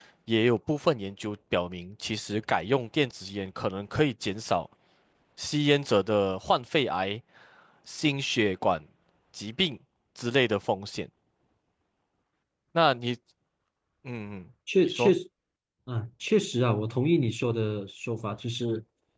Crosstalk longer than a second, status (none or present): none